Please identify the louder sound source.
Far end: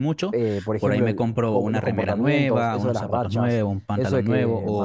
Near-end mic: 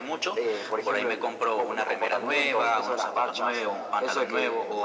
echo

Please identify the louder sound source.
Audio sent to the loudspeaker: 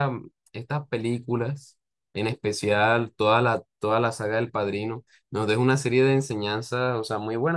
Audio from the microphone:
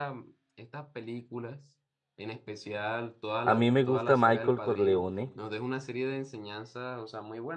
user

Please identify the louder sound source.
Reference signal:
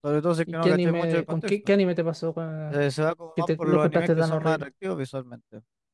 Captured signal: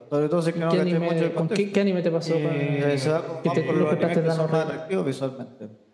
echo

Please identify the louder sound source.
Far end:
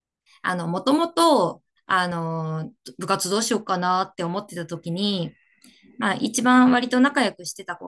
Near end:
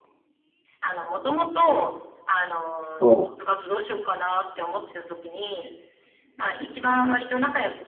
user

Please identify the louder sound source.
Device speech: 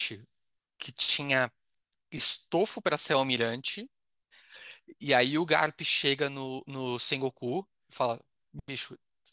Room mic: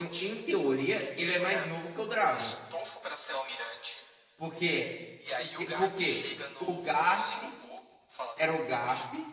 user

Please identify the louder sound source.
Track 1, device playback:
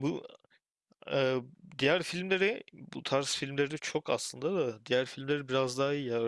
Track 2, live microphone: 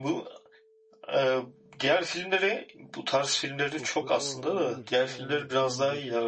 echo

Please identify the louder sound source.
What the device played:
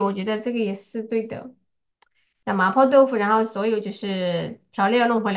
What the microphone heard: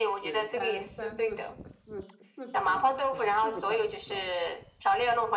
echo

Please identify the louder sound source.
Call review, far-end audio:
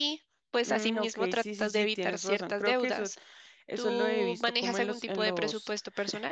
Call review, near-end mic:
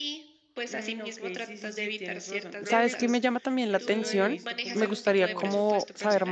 user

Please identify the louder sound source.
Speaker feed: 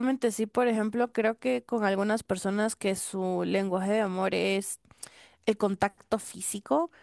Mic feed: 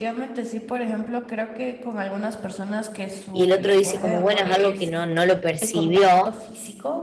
user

